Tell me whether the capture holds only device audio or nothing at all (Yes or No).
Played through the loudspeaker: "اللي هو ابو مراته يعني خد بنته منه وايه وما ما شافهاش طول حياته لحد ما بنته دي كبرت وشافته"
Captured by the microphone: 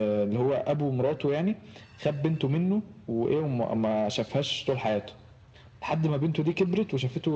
Yes